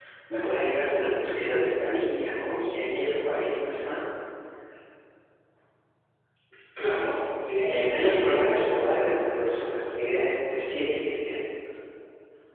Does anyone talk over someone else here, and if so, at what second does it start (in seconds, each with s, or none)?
7.7 s